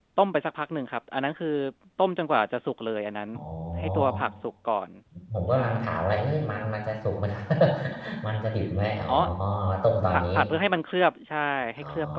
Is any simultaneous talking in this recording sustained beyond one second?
No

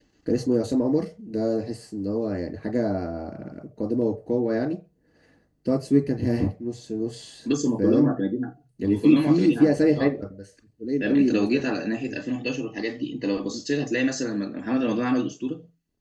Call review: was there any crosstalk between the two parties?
Yes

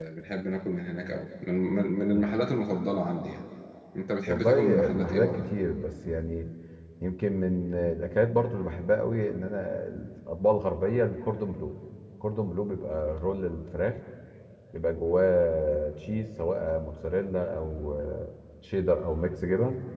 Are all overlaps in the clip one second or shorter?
No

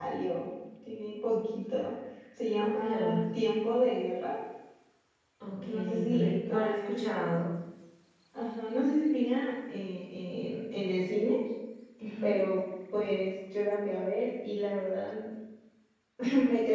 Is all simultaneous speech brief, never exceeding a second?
No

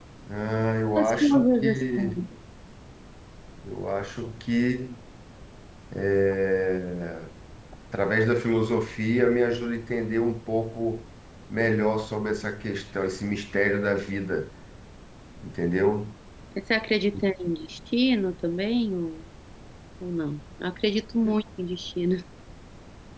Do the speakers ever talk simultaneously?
Yes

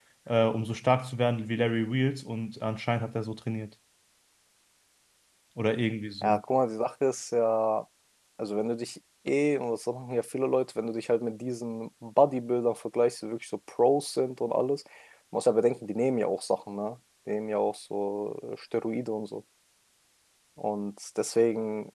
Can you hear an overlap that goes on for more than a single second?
No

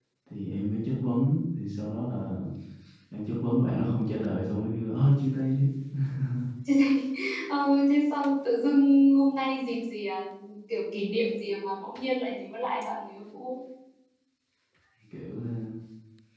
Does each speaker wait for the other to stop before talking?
Yes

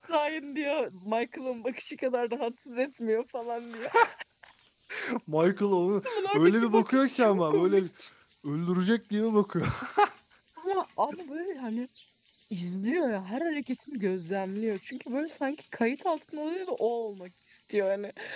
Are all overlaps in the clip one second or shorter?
No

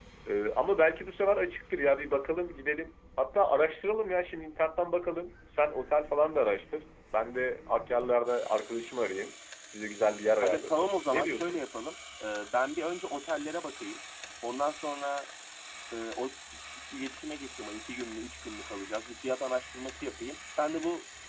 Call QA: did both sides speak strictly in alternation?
No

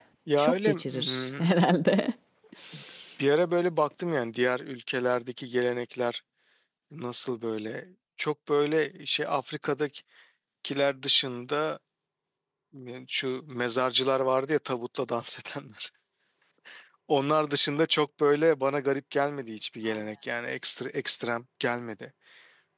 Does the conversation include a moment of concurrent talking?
Yes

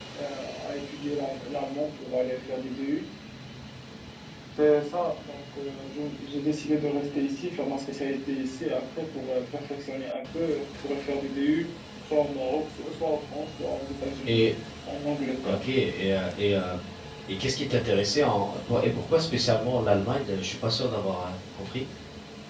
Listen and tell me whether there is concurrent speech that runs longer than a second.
No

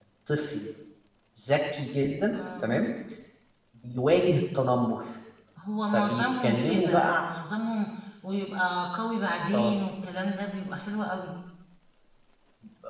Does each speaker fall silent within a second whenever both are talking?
No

